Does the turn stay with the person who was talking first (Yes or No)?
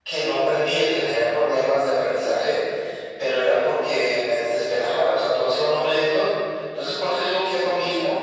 Yes